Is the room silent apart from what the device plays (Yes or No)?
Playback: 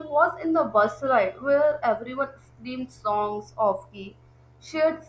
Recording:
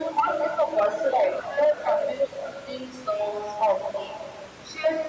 Yes